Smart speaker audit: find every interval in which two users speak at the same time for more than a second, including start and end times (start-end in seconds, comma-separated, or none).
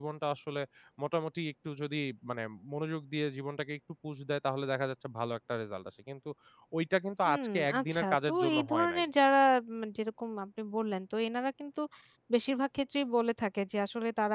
7.2-9.0